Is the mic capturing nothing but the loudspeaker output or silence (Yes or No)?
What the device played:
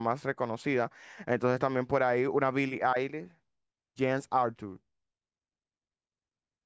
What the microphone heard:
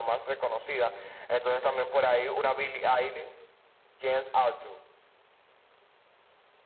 Yes